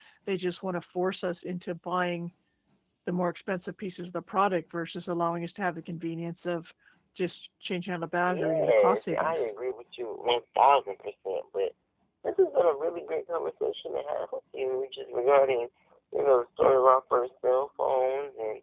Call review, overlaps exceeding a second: present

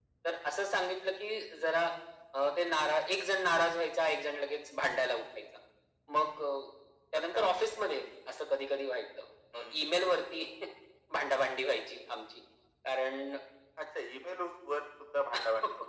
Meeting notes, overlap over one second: none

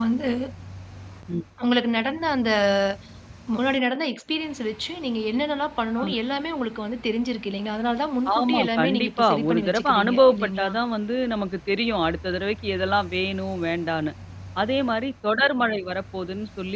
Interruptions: present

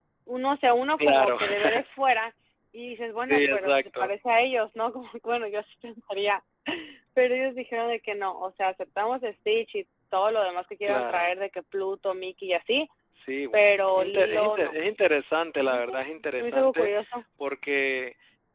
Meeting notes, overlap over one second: present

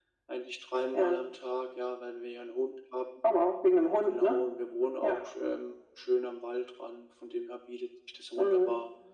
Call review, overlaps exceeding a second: none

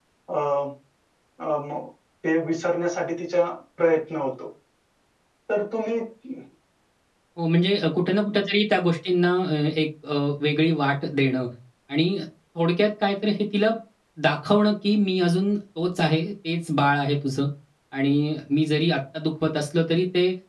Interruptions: none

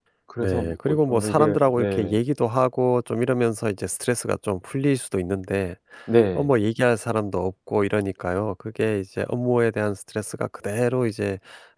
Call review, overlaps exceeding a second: present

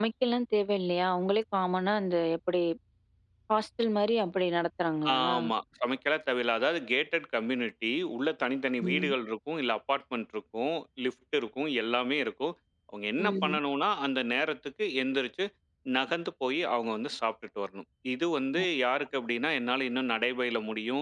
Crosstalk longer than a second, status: none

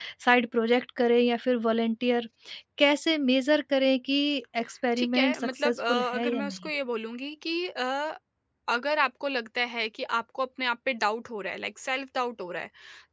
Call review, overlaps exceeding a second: present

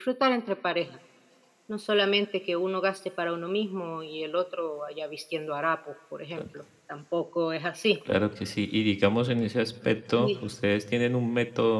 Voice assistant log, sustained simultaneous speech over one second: none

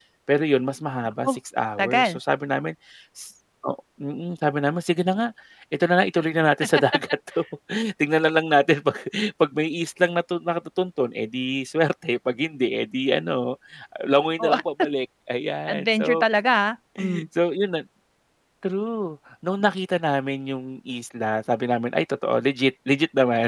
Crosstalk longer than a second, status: none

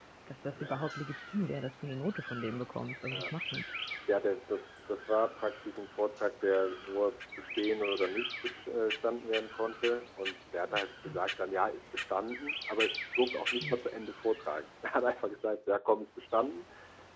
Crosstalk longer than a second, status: none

